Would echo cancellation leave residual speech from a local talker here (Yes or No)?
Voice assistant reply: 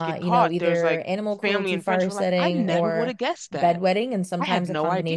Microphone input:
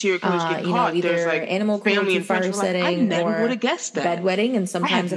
No